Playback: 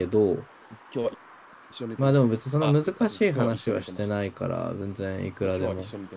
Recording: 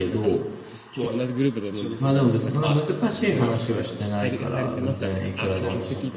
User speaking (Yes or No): Yes